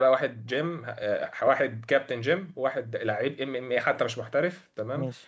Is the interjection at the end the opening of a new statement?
No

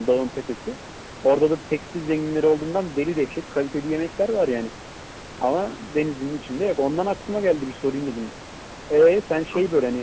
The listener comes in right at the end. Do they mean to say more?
No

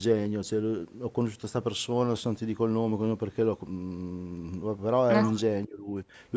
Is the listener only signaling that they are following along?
Yes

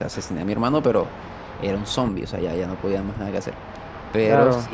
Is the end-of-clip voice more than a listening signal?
No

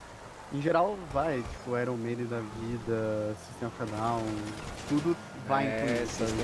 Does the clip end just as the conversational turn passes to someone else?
Yes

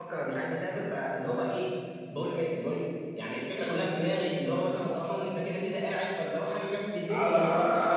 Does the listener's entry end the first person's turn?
Yes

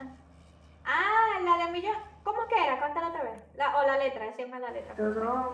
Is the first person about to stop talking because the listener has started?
Yes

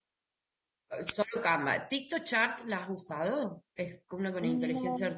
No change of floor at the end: Yes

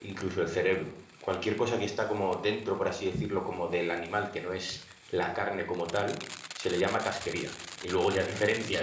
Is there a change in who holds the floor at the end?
No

